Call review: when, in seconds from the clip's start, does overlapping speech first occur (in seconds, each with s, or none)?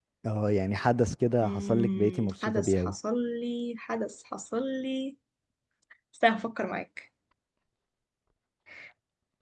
1.4 s